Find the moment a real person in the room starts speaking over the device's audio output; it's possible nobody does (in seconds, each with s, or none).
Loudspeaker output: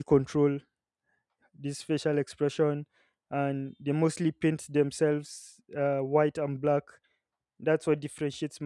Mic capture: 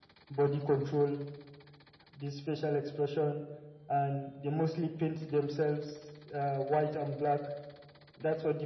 none